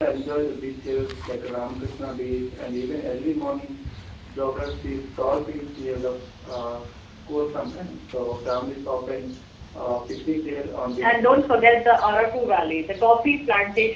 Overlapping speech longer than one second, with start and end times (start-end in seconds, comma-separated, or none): none